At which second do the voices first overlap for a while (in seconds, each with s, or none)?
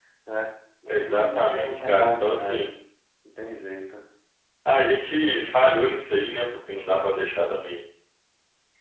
0.9 s